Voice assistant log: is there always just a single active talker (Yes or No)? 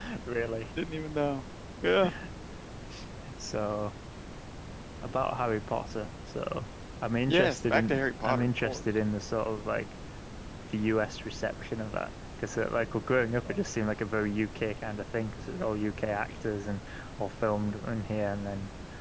No